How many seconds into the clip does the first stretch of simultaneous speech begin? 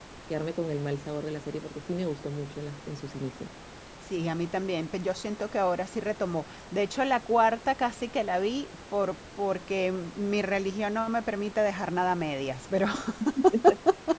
none

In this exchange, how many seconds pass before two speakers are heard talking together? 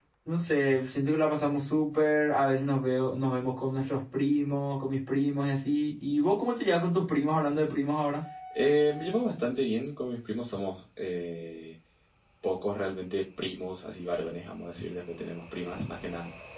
none

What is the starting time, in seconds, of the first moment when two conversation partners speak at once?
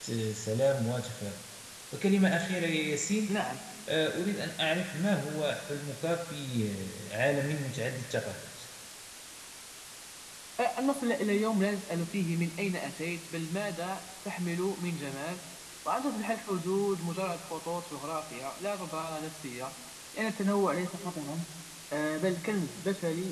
none

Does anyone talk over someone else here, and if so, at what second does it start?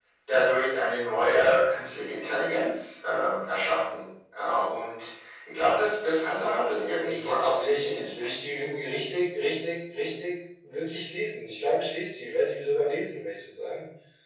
6.7 s

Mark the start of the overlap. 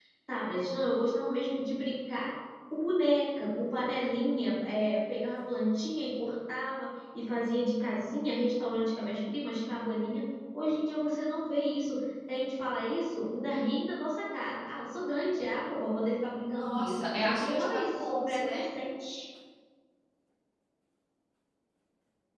16.3 s

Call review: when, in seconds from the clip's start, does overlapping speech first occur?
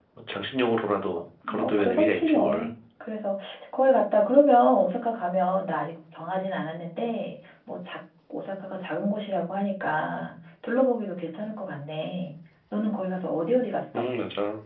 1.4 s

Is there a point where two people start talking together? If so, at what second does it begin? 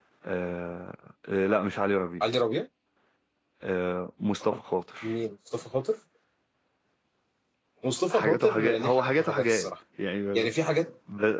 8.1 s

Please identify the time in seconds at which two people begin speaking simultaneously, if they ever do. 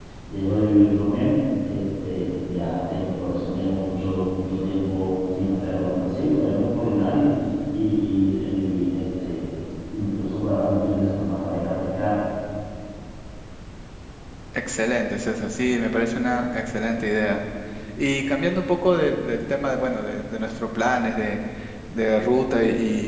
none

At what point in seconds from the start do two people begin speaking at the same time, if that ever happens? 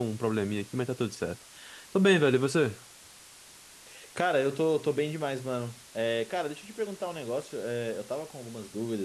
none

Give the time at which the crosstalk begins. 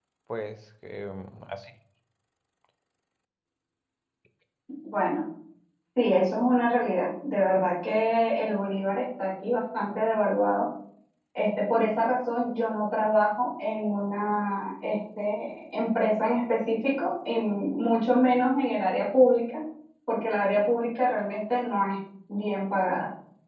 none

